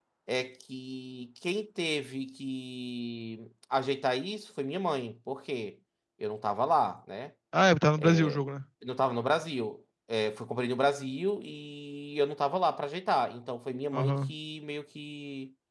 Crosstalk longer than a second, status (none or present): none